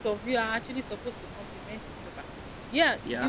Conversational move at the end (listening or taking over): listening